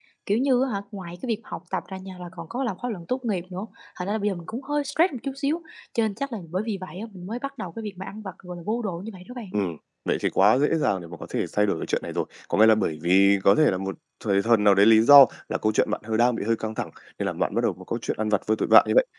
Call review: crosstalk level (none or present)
none